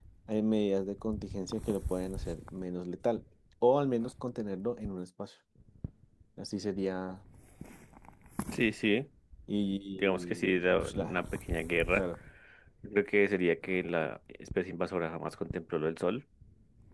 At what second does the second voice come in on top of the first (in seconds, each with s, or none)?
9.9 s